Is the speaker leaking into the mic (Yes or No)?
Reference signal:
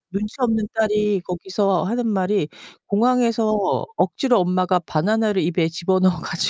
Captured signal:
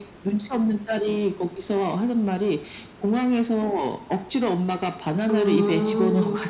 Yes